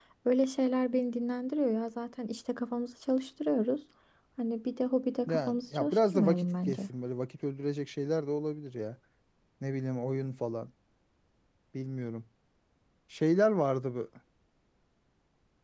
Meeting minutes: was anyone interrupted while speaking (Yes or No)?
Yes